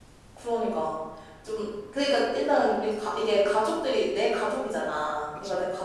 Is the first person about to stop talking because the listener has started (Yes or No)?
No